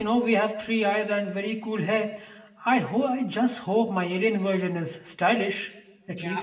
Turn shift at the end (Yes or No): Yes